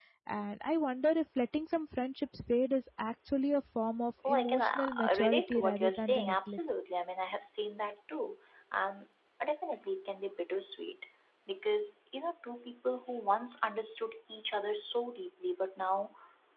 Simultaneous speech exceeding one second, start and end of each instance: 4.3-6.6

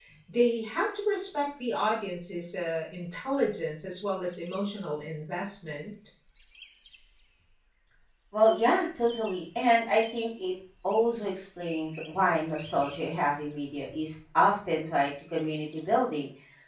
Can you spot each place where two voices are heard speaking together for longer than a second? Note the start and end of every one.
none

